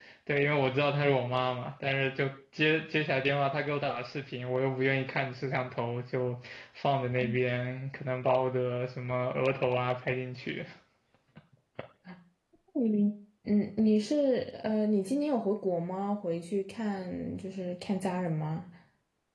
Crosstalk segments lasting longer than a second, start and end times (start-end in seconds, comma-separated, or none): none